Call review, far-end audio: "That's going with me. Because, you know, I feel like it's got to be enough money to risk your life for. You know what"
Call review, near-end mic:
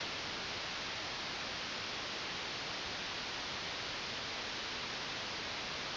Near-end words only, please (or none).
none